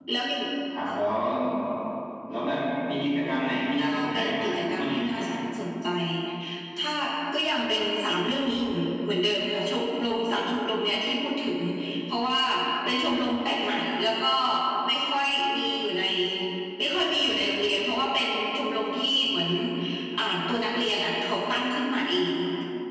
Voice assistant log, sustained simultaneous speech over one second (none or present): present